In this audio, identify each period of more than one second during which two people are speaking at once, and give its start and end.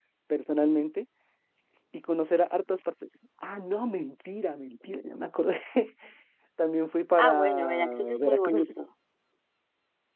7.2-8.7

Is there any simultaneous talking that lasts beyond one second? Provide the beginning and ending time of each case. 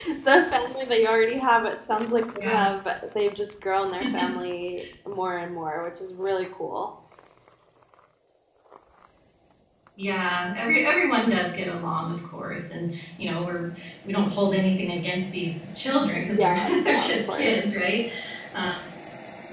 16.3-17.8

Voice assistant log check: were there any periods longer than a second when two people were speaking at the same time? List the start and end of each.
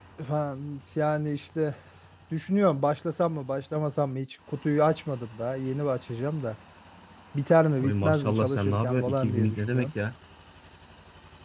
7.8-9.9

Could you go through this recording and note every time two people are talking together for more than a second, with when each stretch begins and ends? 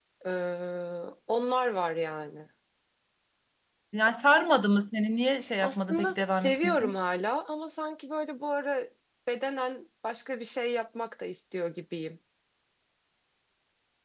5.6-7.0

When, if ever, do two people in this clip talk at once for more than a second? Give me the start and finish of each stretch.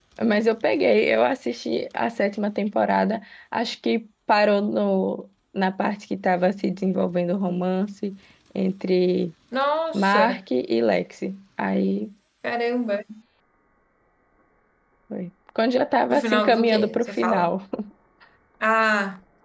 16.1-17.6

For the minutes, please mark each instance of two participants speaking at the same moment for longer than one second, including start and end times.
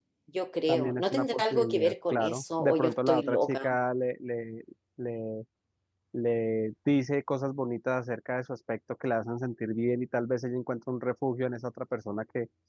0.7-3.6

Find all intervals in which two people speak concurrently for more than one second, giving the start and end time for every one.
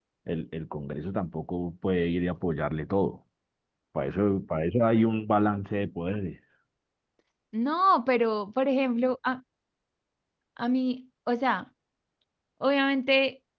none

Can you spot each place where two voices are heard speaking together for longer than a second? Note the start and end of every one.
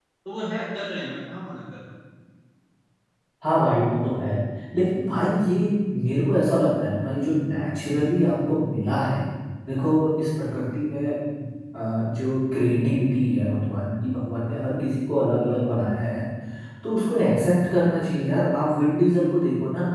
none

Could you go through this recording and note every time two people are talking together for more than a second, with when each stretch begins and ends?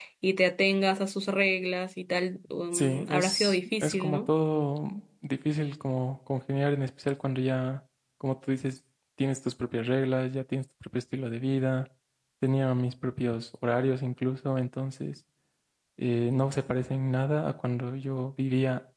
2.7-4.3

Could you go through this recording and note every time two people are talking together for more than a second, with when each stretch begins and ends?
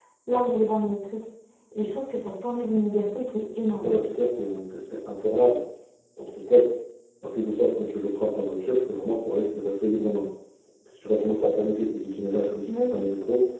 none

